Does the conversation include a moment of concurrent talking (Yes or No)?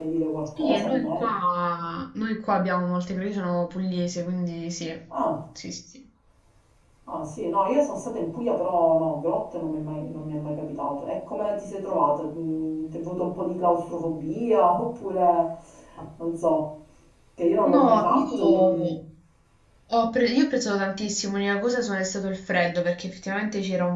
Yes